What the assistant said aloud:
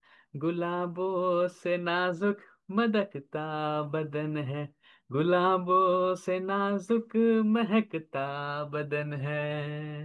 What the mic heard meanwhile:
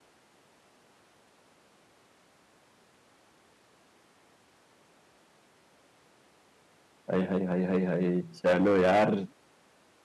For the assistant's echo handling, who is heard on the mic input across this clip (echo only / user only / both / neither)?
user only